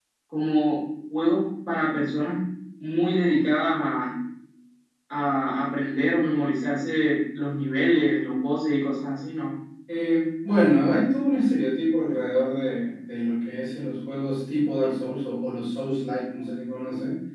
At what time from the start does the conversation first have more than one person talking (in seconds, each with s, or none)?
none